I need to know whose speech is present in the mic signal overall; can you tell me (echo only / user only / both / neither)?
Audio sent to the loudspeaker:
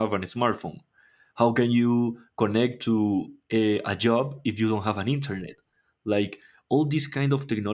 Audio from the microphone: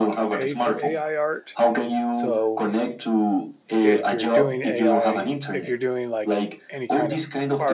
both